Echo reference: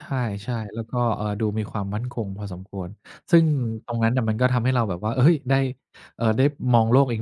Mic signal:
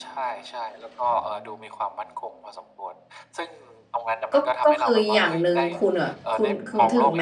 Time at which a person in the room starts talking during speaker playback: 4.3 s

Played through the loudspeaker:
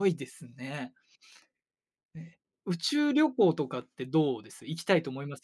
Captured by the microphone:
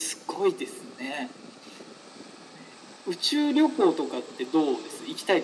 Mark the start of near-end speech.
none

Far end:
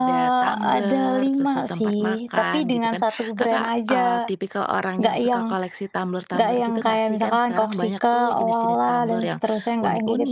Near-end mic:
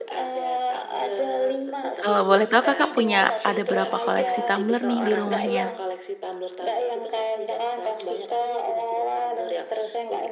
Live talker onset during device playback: 2.0 s

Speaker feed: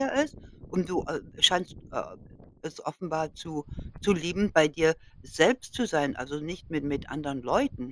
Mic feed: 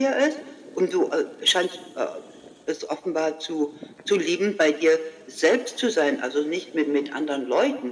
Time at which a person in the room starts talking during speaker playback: none

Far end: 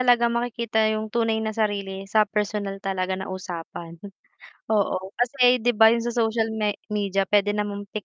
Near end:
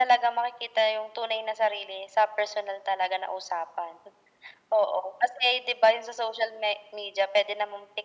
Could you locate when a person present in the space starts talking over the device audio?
none

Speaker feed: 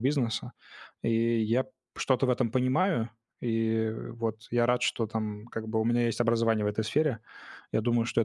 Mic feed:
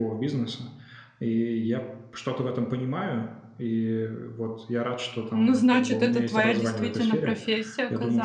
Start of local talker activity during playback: 5.3 s

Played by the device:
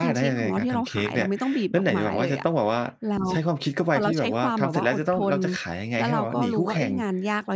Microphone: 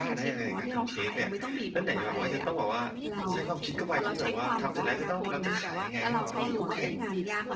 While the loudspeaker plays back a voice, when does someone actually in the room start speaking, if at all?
2.1 s

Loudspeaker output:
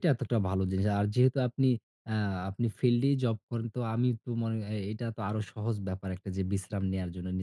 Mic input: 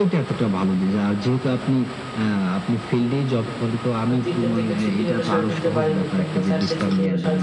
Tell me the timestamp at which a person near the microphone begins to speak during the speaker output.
4.1 s

